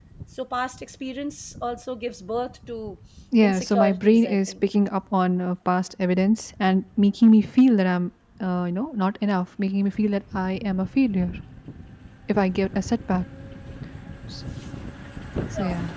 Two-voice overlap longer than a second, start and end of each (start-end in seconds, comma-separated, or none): 3.4-4.6